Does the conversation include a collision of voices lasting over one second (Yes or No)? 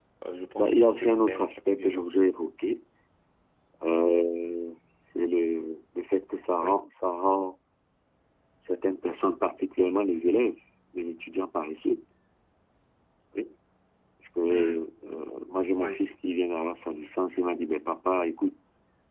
Yes